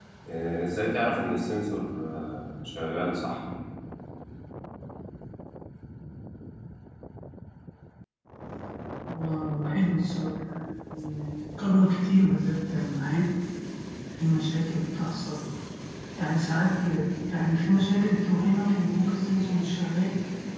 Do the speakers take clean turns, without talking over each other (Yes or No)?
Yes